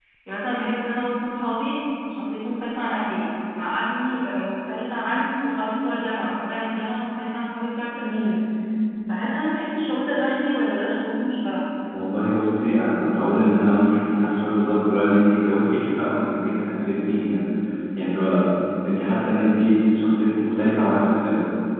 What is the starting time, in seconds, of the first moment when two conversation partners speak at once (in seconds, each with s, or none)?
none